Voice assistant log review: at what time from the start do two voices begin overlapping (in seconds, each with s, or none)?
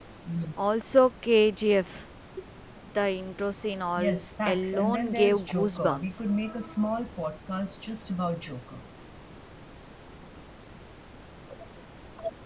4.0 s